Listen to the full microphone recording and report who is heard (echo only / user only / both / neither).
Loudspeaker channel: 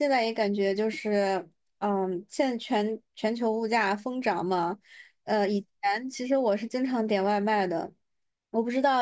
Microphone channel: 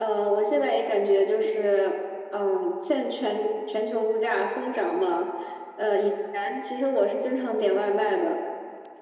echo only